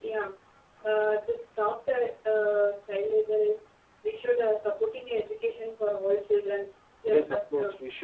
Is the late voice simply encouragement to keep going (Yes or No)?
No